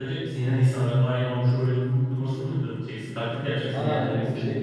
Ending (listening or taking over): taking over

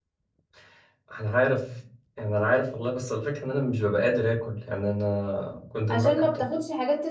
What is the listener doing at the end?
taking over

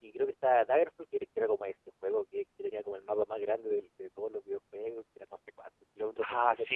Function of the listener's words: taking over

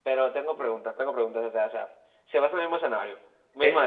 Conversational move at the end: taking over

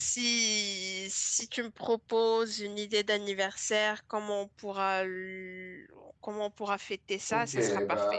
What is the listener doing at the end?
taking over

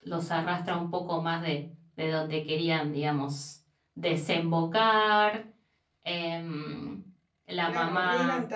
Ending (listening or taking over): taking over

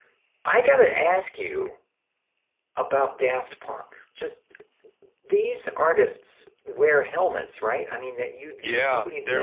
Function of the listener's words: taking over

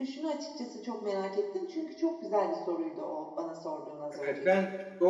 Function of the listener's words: taking over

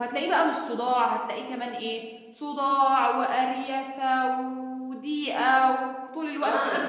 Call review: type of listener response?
taking over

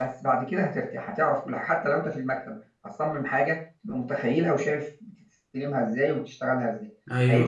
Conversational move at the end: taking over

